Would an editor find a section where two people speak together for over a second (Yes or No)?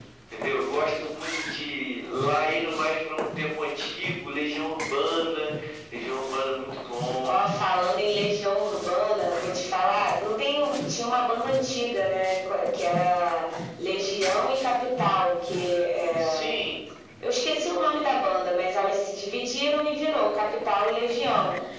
No